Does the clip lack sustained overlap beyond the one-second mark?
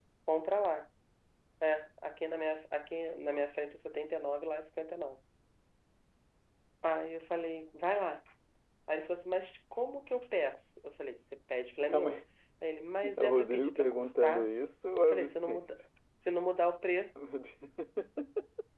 No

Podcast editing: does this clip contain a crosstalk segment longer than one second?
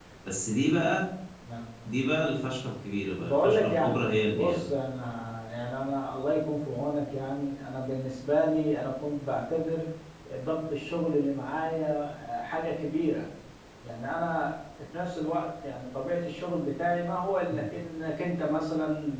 Yes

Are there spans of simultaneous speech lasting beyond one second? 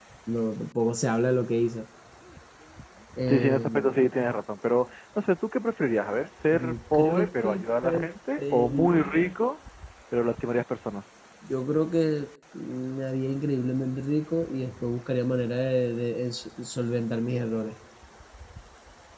Yes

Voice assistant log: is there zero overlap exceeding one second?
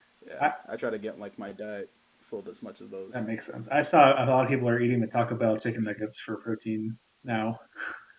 Yes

